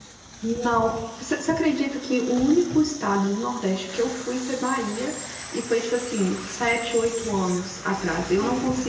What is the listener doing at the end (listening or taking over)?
listening